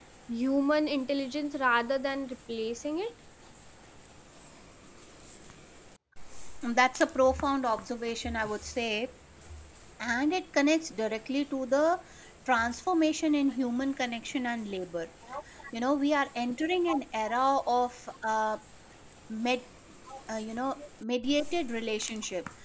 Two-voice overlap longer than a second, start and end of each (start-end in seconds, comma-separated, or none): none